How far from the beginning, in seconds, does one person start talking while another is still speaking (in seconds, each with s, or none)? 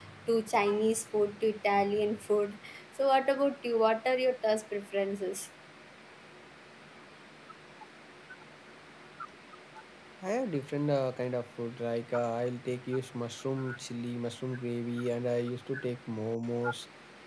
none